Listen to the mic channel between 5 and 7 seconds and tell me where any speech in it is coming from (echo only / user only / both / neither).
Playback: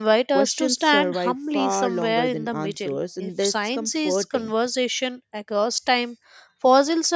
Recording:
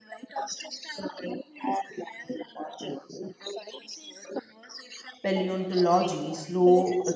both